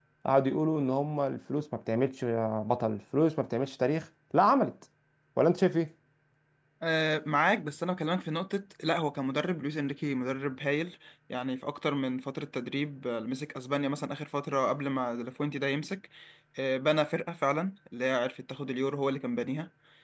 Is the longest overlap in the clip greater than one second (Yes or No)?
No